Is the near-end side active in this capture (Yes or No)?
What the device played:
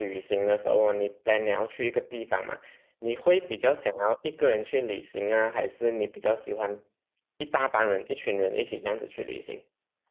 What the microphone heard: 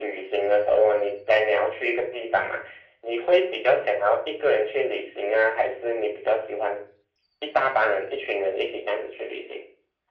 No